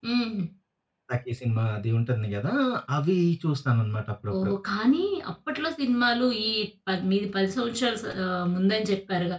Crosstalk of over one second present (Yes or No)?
No